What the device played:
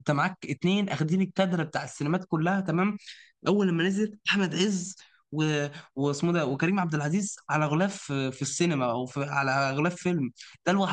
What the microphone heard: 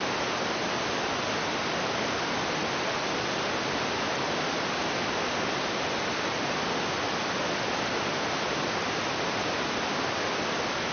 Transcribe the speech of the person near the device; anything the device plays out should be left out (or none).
none